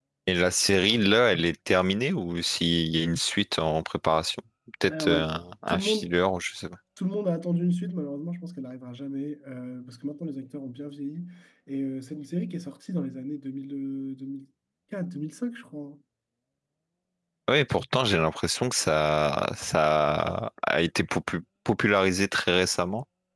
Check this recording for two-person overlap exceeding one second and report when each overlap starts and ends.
none

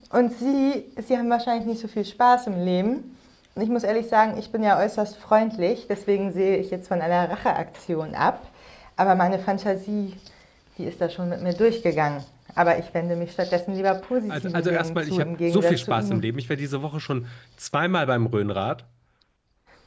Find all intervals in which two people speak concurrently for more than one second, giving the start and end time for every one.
14.3-16.3

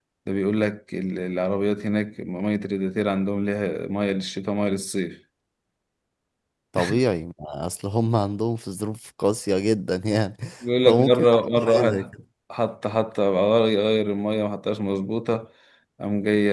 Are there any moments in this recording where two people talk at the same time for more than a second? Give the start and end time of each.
10.8-12.1

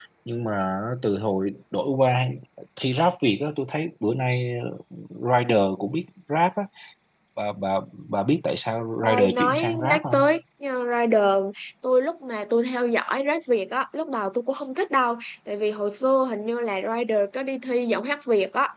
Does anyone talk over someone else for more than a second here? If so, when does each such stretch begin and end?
9.0-10.3

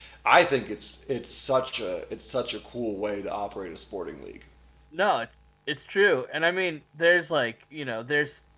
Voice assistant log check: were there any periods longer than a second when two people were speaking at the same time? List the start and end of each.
none

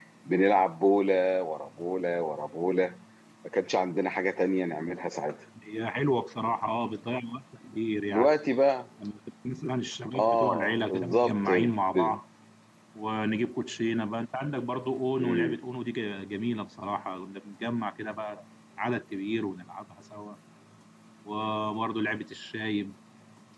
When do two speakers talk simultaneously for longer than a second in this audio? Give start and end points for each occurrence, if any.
10.2-11.4

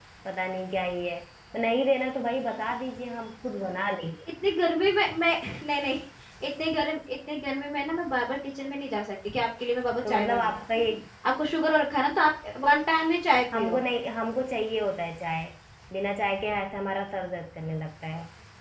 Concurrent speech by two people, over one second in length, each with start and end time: none

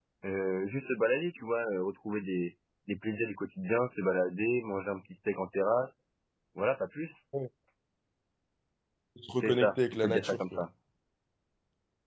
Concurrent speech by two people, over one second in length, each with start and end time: 9.4-10.6

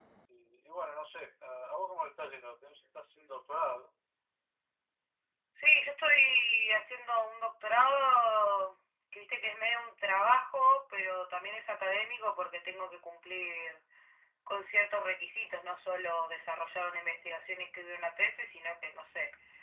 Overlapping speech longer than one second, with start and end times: none

